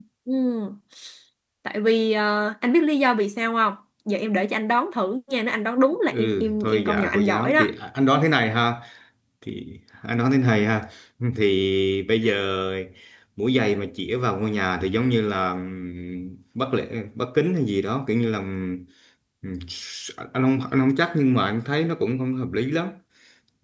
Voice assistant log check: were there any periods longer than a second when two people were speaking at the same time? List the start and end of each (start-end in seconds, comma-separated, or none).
6.1-7.6